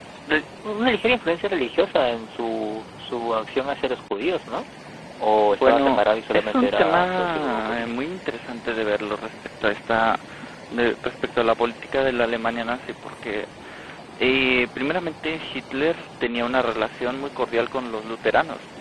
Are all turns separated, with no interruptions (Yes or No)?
No